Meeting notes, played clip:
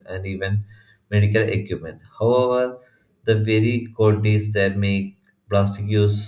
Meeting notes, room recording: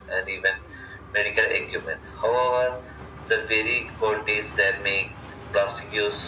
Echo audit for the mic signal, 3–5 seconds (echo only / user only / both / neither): echo only